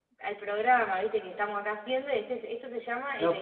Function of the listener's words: taking over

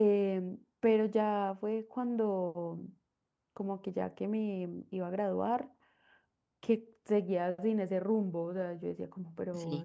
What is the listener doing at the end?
listening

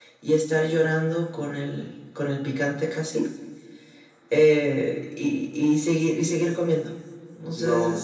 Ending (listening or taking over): taking over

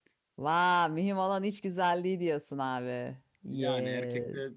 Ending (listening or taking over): taking over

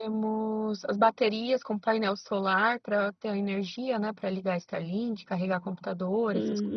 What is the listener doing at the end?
taking over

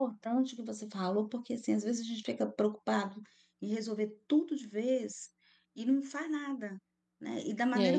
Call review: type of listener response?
listening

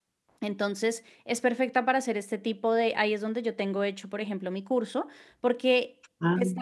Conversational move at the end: listening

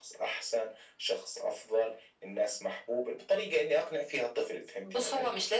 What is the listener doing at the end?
taking over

